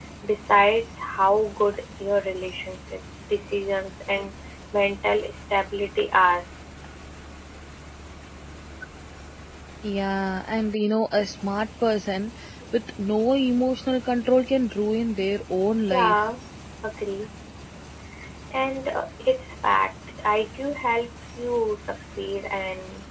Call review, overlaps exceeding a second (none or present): none